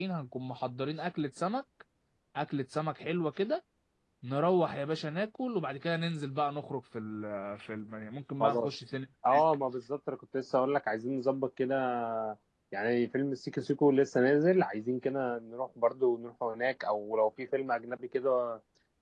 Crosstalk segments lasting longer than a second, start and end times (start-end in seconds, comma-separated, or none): none